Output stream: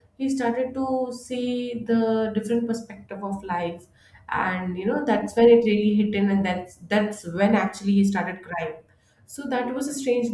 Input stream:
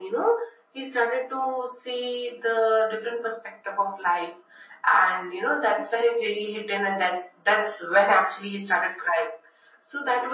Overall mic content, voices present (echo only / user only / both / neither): echo only